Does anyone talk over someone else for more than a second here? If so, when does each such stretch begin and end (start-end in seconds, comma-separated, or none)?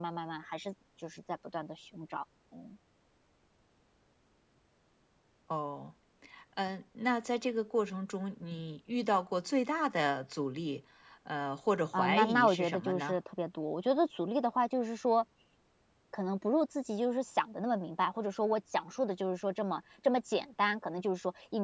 11.9-13.2